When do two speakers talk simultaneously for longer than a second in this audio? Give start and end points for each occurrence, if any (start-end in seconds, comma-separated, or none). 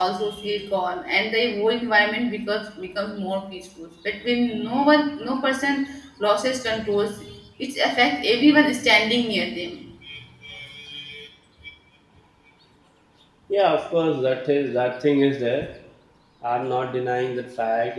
none